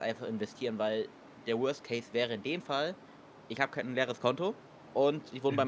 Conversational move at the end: listening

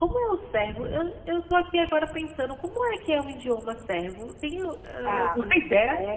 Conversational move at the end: taking over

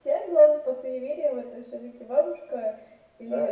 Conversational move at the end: taking over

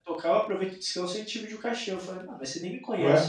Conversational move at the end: listening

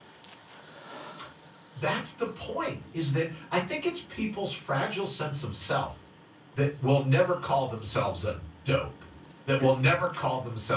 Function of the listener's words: listening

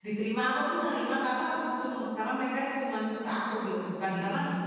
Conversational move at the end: listening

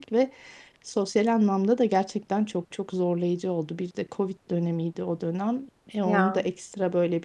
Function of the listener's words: listening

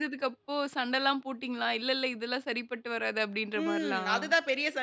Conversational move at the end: taking over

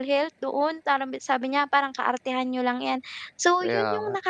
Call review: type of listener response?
listening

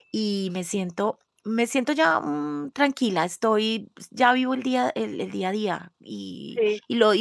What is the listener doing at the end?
listening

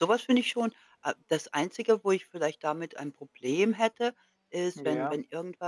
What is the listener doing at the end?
listening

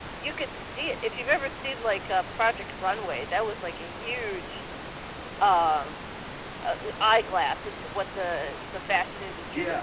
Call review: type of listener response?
taking over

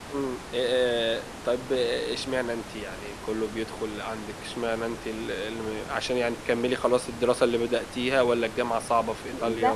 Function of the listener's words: taking over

